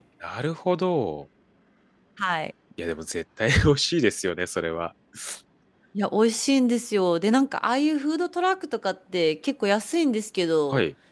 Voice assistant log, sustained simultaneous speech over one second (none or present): none